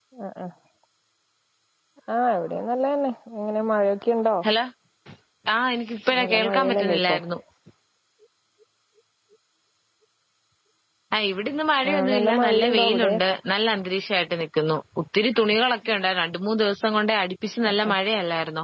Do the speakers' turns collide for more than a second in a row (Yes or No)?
Yes